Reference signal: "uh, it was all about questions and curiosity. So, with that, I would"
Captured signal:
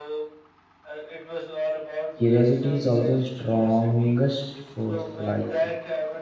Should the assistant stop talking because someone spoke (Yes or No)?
Yes